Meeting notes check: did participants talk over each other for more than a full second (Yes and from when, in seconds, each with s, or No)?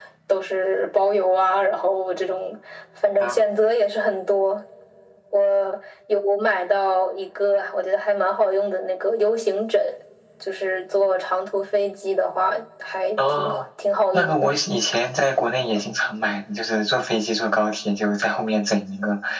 No